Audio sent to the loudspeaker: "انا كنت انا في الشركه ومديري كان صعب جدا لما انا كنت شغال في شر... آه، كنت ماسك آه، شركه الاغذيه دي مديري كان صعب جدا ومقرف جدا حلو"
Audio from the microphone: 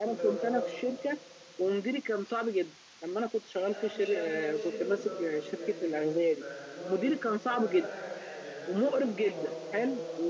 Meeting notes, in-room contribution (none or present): present